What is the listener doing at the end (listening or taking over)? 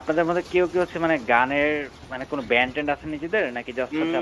taking over